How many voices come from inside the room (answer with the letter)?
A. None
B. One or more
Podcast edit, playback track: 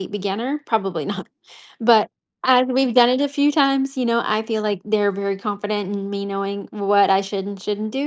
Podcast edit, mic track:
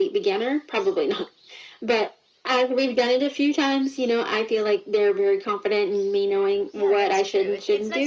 B